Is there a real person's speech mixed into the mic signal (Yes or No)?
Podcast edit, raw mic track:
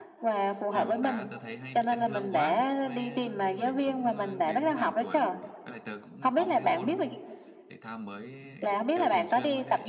Yes